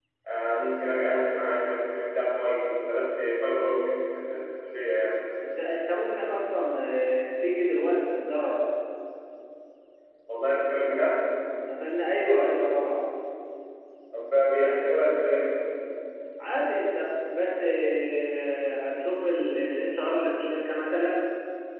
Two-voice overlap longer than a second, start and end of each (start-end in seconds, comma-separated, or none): none